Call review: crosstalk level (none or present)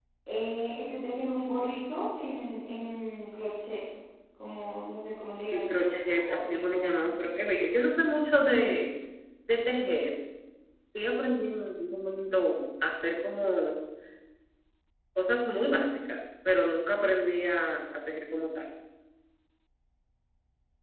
present